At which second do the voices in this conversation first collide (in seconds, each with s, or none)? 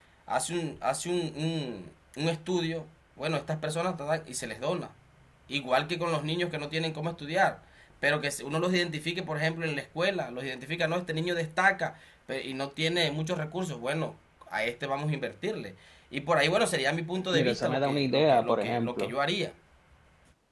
17.3 s